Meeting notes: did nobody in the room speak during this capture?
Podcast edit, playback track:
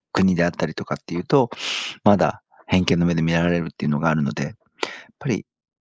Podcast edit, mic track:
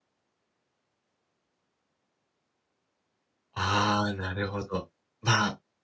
No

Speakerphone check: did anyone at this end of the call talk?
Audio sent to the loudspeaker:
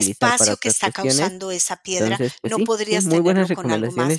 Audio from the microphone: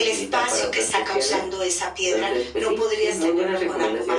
No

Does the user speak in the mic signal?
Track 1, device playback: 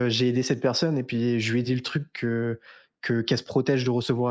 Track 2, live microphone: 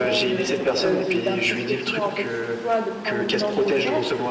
Yes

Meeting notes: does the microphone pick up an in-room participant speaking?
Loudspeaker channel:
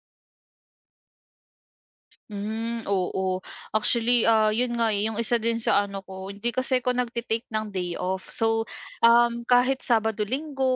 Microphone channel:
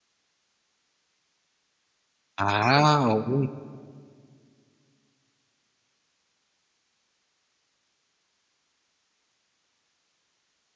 Yes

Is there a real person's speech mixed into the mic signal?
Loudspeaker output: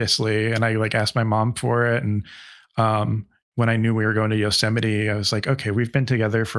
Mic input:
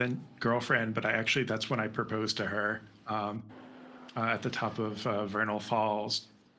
Yes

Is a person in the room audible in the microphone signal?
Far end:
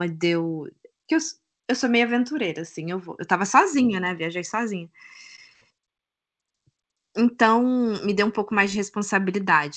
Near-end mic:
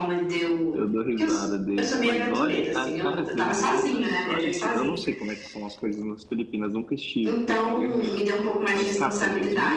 Yes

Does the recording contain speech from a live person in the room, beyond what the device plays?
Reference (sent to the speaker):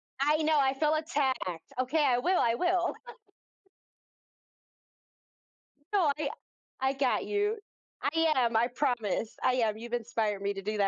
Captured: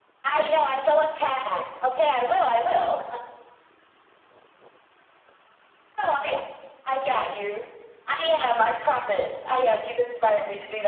No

